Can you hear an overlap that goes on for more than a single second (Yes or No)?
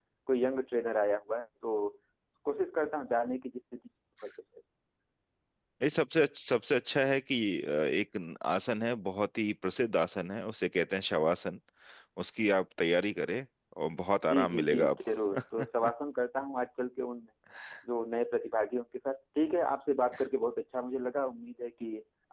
Yes